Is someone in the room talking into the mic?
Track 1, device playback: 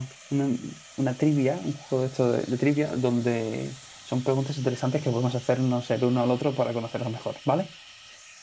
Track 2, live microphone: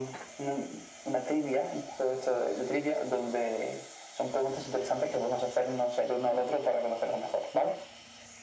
No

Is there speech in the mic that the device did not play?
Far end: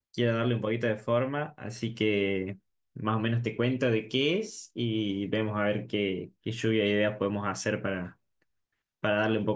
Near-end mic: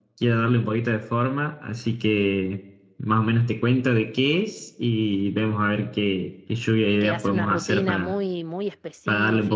Yes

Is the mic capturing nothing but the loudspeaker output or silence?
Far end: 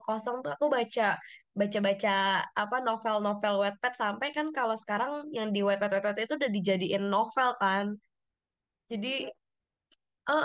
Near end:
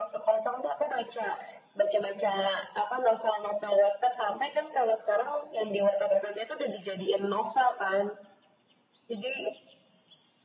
Yes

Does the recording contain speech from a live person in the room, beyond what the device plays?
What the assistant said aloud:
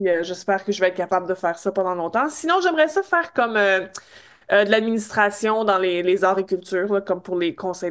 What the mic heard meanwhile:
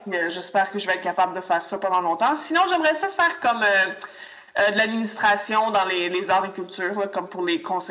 No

